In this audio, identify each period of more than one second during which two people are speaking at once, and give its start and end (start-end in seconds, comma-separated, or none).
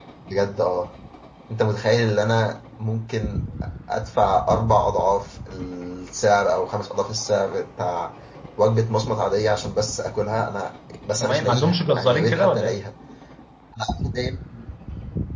11.2-12.8